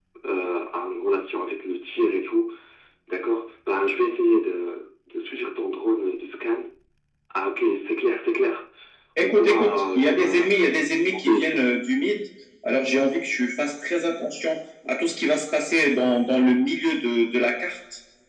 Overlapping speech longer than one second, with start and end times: 9.2-10.5

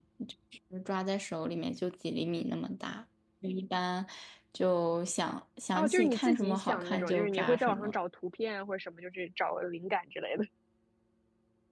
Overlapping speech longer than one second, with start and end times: 5.7-7.9

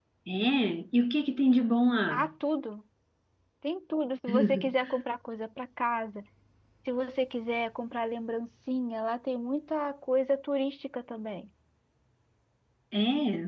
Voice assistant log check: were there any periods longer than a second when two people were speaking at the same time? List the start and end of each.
none

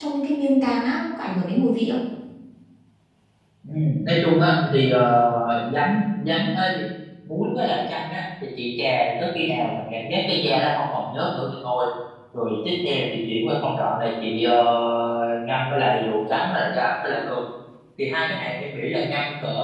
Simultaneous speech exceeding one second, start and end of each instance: none

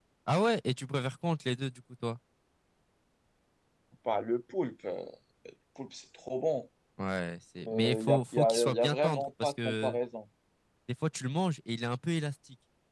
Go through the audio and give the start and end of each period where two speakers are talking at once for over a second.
7.7-10.0

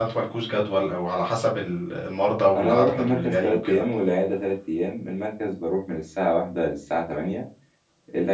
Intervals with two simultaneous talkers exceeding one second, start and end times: 2.5-3.8

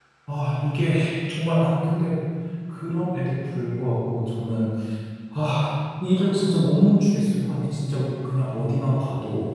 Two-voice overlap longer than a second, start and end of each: none

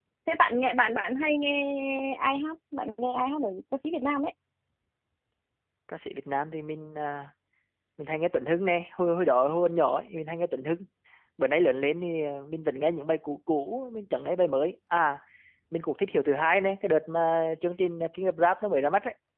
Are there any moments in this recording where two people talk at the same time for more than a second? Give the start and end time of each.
none

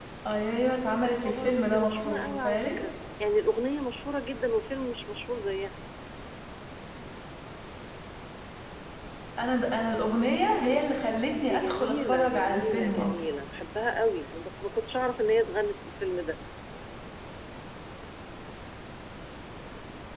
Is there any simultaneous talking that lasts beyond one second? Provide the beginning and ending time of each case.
1.0-2.7, 11.4-13.2

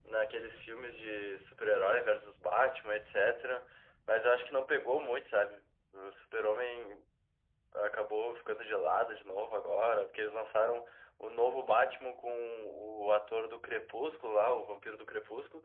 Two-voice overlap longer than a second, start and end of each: none

